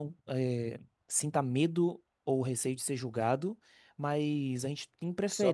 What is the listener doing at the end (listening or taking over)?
listening